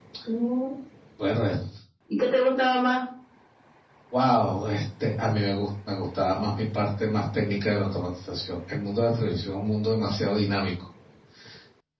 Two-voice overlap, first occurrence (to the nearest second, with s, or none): none